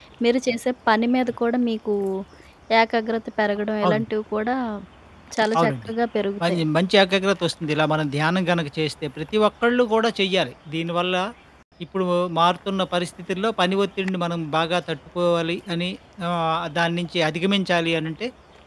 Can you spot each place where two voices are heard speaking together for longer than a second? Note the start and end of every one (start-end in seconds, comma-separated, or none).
none